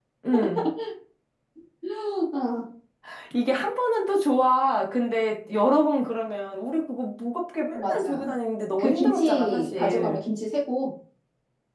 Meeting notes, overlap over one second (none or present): present